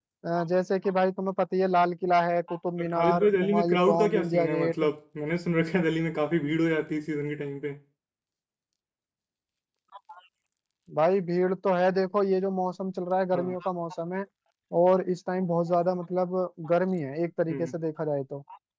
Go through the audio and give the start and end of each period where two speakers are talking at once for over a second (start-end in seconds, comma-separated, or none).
2.8-4.9